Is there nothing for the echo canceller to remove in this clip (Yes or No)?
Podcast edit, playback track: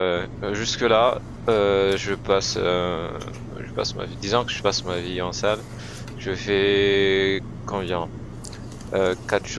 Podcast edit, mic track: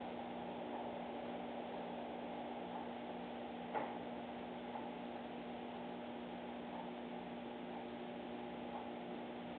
Yes